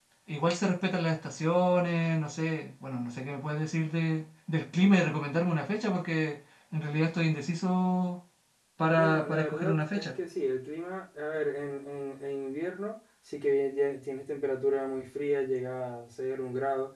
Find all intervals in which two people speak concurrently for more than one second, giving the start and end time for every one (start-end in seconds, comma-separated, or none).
8.9-10.2